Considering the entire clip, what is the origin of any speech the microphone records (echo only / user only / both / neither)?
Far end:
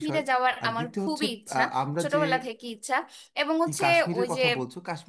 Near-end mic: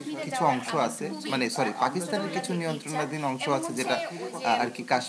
both